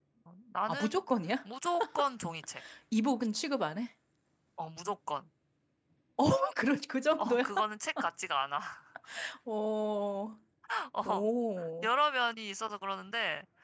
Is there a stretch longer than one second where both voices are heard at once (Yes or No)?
No